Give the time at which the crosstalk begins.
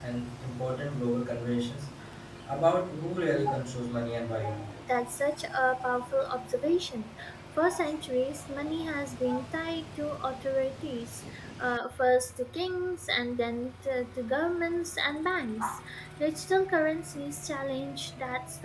none

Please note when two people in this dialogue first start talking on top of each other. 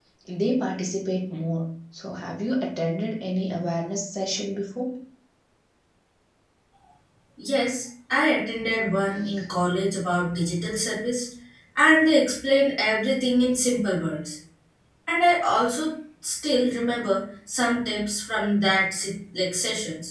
none

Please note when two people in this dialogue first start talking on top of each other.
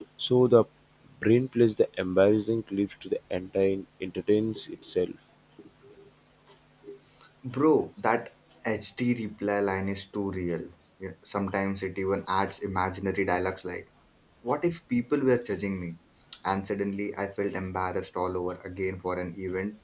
none

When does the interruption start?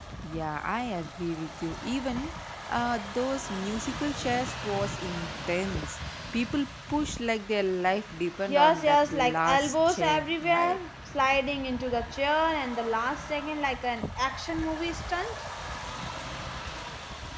8 s

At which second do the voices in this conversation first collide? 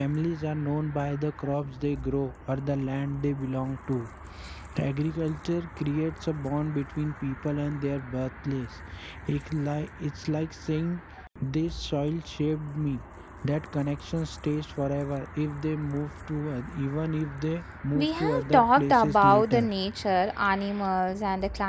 18 s

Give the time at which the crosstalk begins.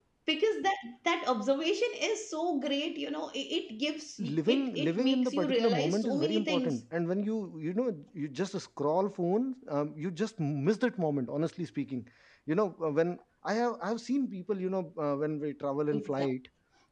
4 s

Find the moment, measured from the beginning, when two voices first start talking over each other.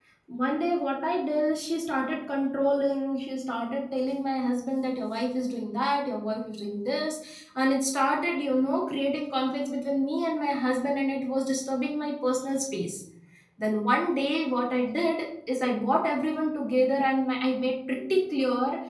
none

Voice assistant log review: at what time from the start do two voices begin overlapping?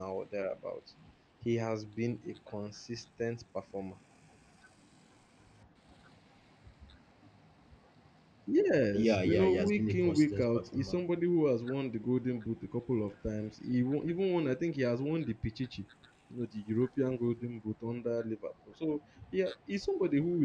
9 s

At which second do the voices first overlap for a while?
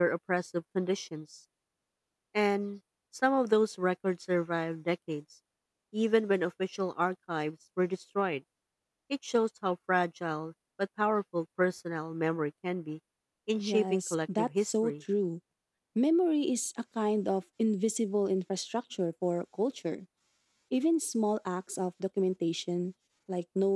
14 s

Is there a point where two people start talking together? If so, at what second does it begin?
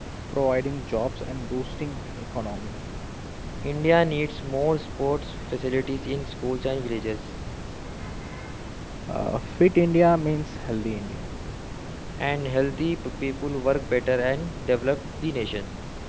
none

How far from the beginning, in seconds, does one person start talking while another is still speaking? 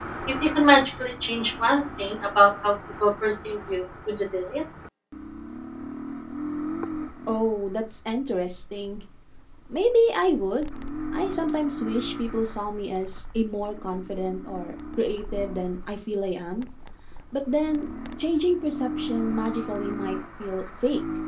none

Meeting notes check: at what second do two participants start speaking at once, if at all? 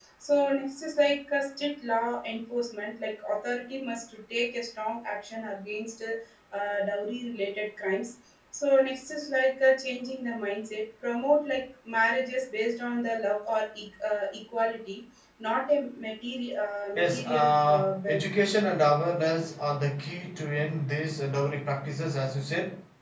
17 s

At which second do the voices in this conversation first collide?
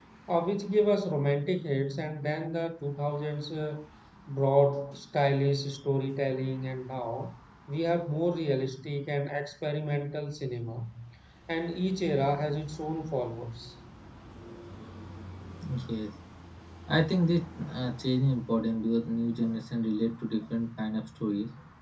none

